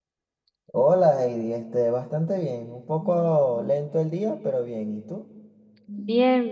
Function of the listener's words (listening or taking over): taking over